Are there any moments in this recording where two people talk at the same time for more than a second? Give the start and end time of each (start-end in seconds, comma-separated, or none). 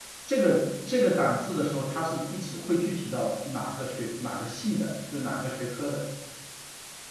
none